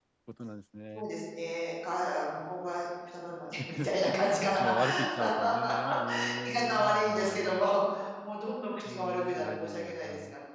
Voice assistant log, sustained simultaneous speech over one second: present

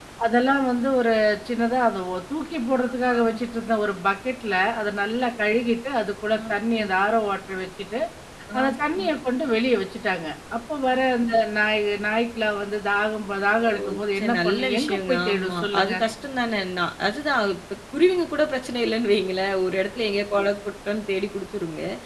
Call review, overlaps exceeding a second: present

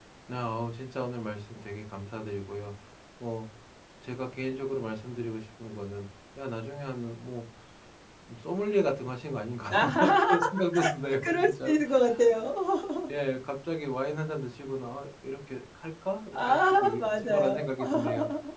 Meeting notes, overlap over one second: present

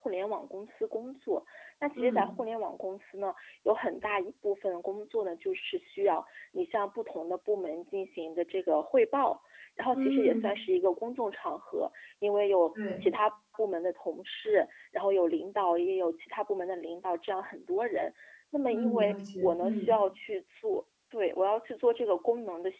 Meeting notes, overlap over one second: present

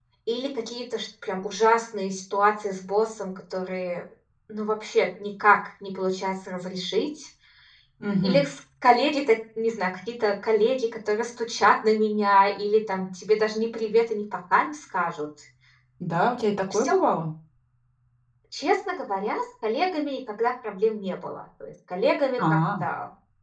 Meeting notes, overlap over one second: none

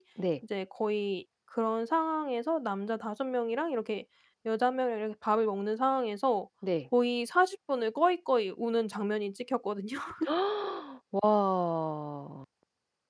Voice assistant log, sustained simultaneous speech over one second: none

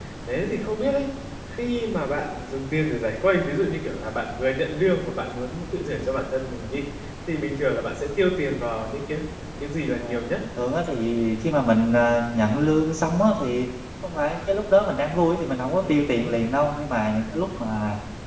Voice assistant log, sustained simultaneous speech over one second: none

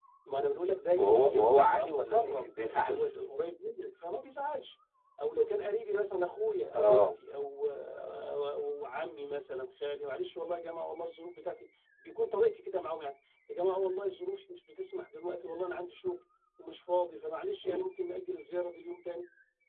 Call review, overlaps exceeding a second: present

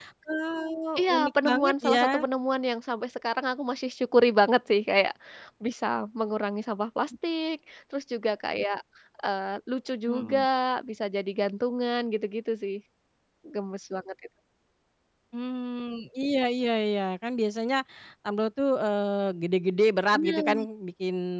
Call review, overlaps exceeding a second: present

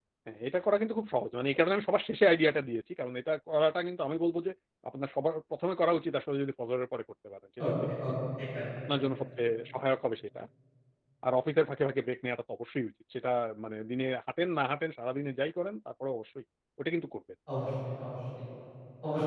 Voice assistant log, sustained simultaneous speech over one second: none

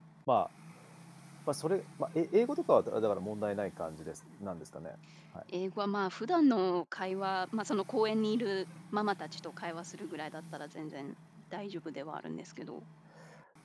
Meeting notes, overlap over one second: none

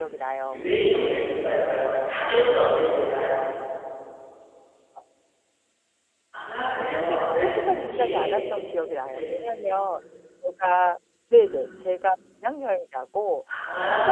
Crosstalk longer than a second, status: present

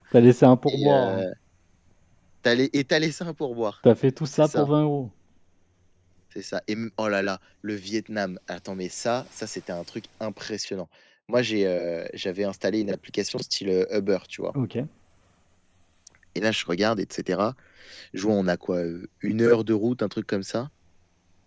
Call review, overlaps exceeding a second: none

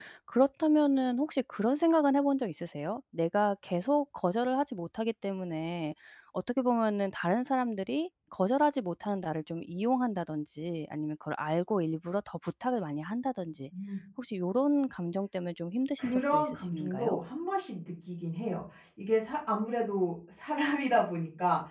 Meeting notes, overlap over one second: present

